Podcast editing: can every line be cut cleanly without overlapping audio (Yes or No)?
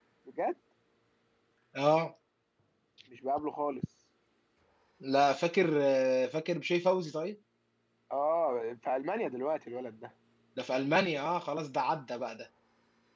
Yes